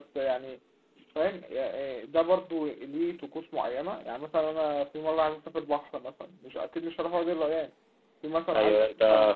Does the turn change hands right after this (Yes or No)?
Yes